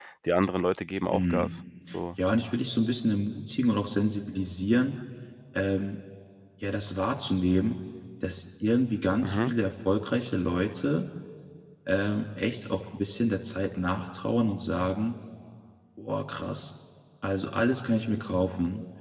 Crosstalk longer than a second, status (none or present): none